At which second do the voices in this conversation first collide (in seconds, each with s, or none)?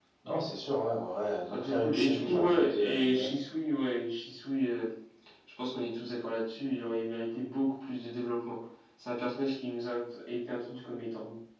1.5 s